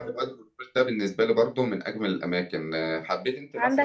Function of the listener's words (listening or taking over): taking over